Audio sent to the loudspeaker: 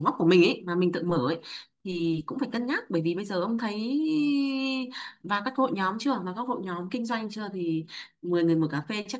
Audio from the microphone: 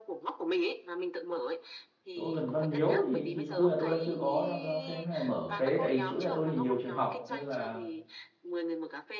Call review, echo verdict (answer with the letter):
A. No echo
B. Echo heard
B